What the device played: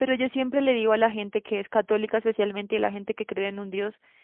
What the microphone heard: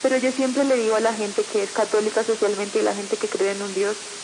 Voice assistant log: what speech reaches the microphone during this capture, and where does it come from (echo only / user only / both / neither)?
echo only